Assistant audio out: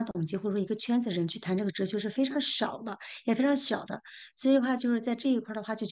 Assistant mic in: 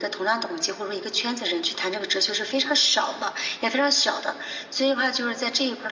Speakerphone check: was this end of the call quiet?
Yes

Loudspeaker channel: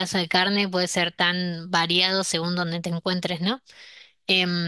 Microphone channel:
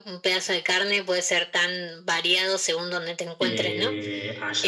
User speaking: Yes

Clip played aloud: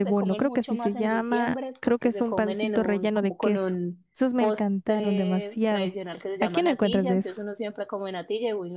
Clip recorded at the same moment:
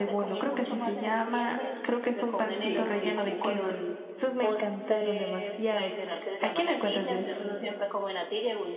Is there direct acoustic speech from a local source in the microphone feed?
Yes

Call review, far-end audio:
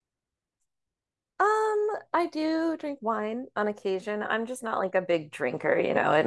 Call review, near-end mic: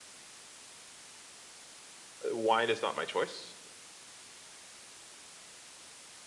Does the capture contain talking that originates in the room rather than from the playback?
Yes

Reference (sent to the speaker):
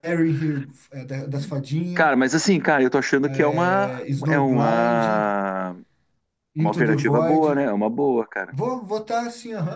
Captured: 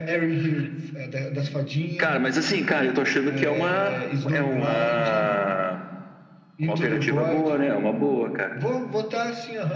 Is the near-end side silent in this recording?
Yes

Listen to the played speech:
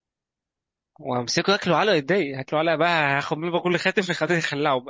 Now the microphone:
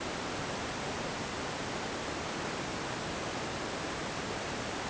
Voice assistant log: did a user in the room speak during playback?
No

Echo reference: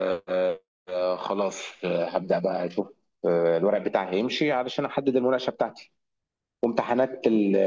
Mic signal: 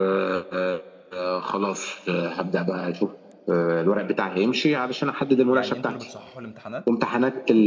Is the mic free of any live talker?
No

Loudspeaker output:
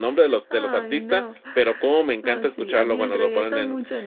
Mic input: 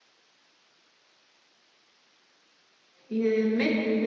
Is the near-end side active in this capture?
Yes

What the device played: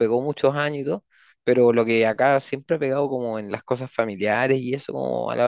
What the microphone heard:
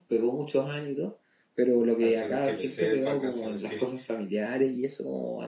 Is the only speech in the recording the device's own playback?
No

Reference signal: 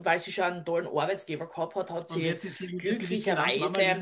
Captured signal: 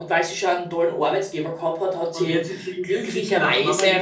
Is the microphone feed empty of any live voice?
Yes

